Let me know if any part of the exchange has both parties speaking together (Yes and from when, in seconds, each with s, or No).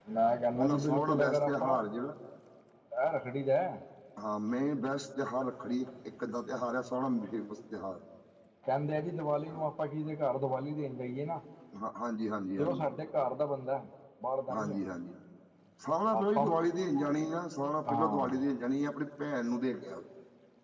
Yes, from 0.5 s